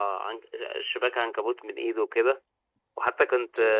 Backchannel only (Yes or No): Yes